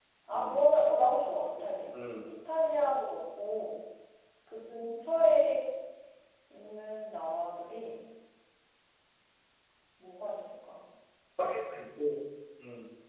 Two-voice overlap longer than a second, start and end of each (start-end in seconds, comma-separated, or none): none